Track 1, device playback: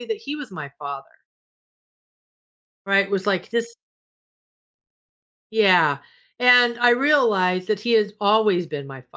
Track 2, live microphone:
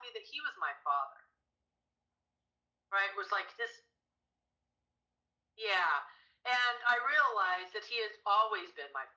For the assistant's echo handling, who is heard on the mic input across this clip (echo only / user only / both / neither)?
echo only